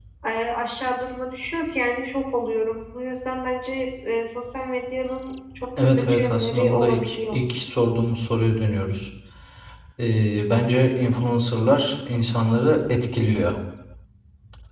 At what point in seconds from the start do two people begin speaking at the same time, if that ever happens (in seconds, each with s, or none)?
5.8 s